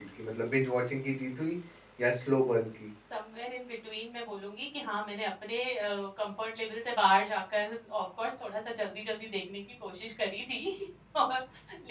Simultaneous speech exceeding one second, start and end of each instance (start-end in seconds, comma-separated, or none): none